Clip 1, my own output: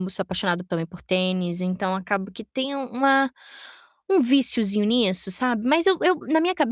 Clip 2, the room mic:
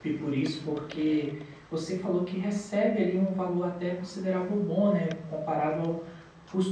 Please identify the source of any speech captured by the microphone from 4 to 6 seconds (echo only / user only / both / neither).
user only